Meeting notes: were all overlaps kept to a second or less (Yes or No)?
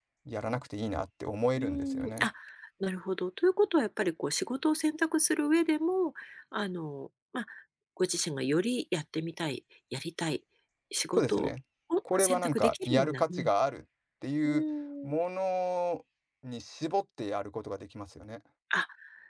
No